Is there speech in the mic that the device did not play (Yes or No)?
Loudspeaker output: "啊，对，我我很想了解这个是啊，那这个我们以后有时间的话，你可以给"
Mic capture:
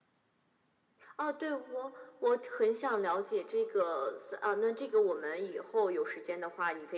No